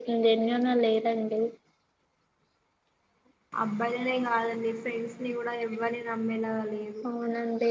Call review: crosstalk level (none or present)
none